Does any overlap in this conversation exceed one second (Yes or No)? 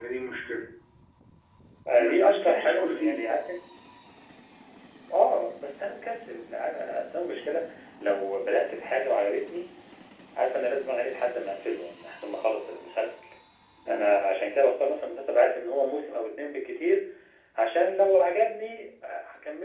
Yes